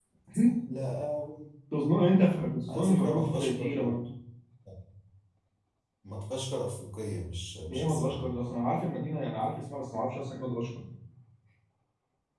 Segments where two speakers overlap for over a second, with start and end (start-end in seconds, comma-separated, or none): 2.7-3.9